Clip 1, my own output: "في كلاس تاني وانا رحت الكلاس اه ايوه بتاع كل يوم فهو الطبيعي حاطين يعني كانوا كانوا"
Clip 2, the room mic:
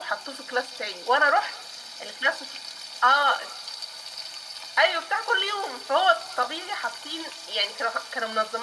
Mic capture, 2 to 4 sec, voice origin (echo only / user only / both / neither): echo only